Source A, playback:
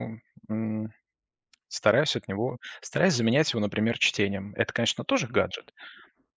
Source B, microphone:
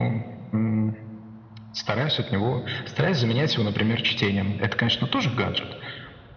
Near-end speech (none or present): none